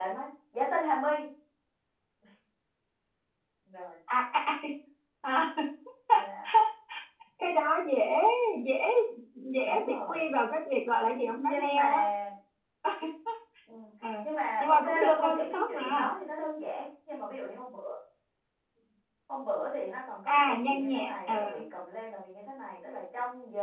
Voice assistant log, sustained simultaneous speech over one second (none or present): present